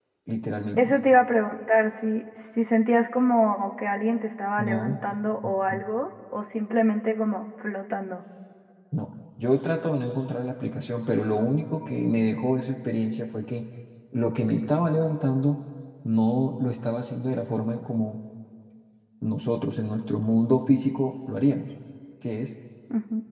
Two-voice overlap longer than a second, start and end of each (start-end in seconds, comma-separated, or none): none